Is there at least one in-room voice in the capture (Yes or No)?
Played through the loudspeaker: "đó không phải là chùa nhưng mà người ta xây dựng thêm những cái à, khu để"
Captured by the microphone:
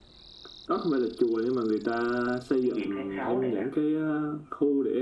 Yes